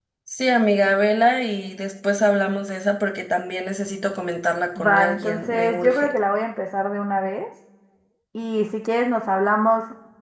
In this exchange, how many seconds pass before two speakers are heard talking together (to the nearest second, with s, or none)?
5 s